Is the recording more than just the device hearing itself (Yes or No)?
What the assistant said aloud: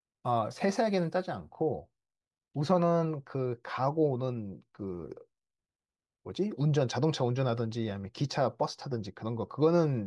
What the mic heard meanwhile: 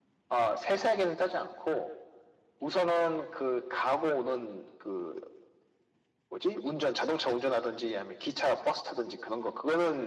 No